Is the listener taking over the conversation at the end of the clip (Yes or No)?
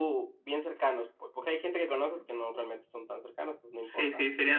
Yes